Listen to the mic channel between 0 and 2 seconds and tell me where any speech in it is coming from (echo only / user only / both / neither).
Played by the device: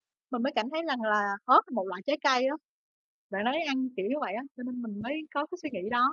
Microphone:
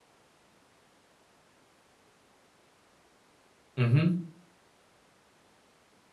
neither